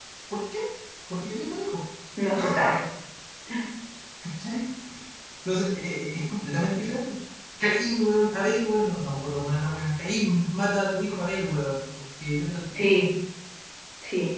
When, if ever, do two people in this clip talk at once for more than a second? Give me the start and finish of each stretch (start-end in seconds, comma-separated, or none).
none